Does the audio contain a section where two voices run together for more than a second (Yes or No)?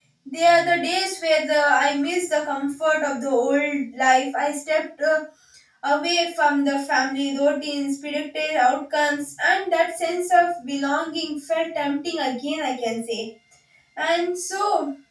No